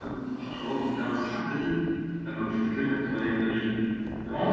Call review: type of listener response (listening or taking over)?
taking over